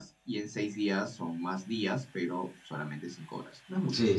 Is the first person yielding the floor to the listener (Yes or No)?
Yes